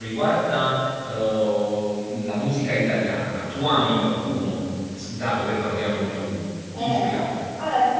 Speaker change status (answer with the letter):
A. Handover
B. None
A